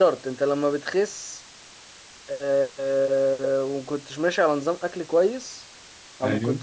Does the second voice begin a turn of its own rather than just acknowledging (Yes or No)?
No